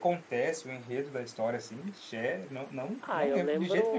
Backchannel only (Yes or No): No